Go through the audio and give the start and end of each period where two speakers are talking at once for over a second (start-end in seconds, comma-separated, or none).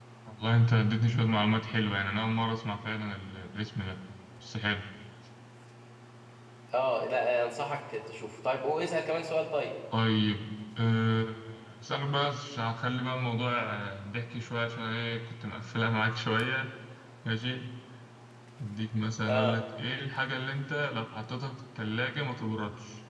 none